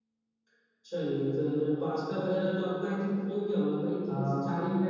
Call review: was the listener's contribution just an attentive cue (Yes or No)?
No